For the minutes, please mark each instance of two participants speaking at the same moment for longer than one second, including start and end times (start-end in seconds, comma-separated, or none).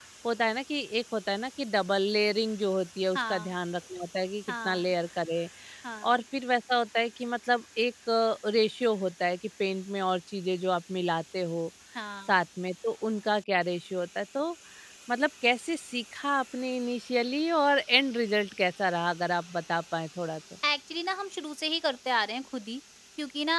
none